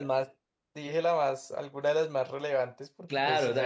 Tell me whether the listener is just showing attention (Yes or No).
No